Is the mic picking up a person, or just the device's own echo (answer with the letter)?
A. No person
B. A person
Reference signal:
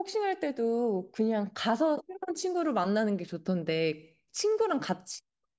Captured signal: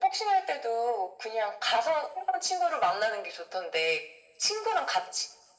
A